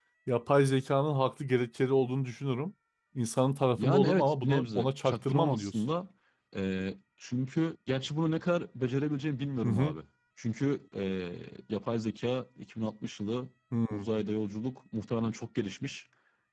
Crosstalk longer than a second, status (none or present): present